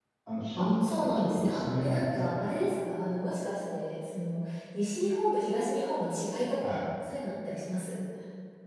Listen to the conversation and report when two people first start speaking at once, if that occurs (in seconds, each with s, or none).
0.6 s